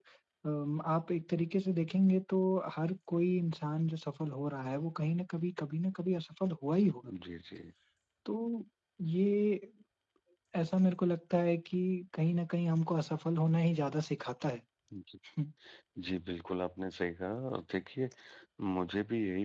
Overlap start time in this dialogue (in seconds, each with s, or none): none